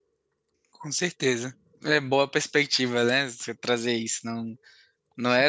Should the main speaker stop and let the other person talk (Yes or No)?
No